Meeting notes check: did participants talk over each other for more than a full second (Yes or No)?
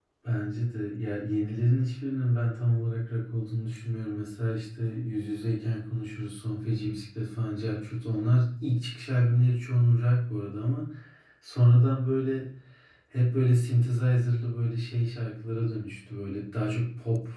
No